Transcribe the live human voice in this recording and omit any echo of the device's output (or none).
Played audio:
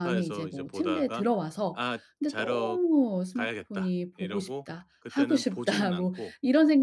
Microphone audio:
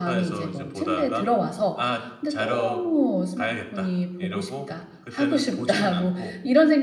none